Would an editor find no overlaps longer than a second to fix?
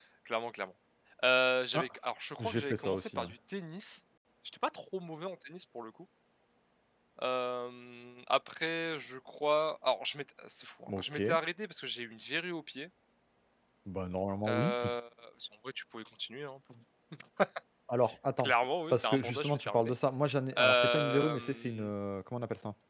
No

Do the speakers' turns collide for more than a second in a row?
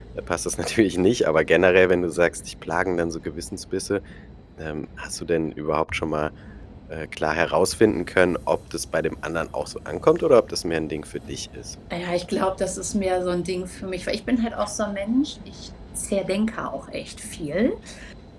No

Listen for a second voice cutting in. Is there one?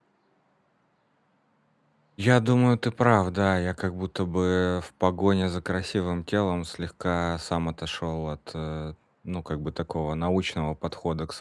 No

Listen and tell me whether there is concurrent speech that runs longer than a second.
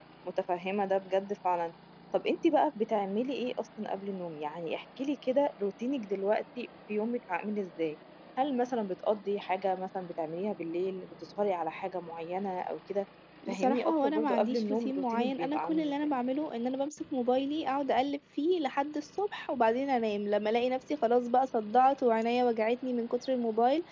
Yes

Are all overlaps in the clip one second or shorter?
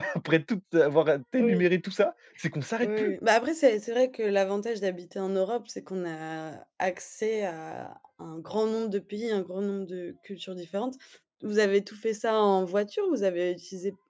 Yes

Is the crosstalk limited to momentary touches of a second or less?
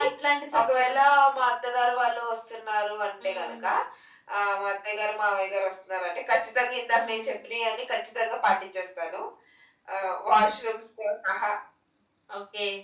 Yes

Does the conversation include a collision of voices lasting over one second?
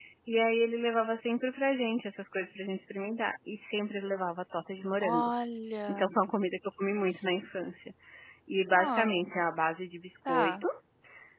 No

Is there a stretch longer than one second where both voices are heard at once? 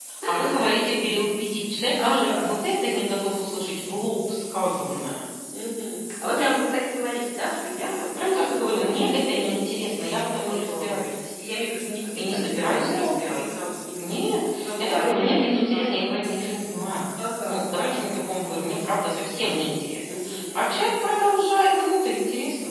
Yes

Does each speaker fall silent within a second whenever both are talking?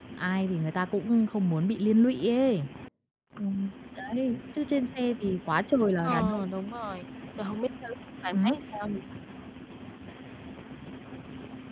Yes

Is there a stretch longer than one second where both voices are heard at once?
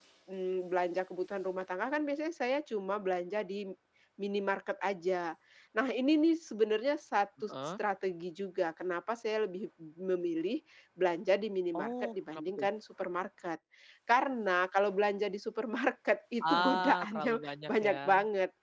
Yes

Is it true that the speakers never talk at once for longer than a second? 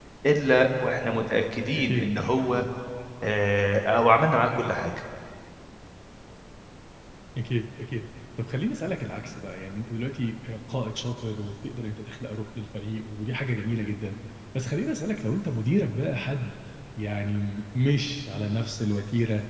Yes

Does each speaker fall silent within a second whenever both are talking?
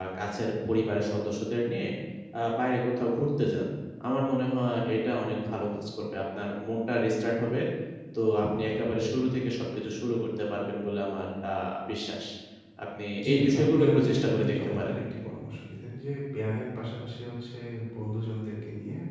No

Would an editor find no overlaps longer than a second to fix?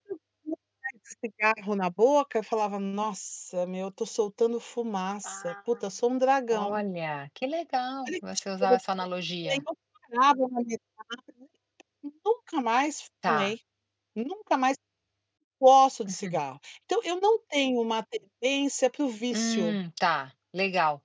Yes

